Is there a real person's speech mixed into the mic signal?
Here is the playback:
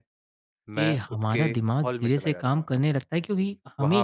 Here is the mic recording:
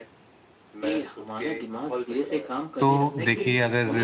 Yes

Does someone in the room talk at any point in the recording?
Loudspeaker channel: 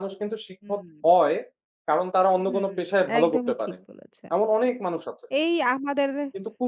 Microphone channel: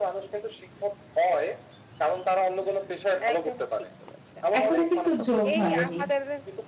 Yes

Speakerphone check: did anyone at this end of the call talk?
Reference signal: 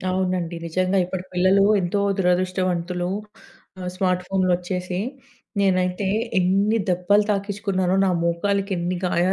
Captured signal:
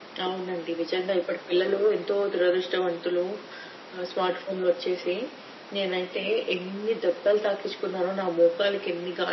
No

